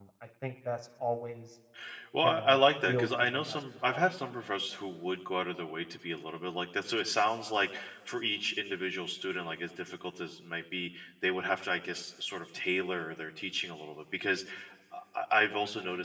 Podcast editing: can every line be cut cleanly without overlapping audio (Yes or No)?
No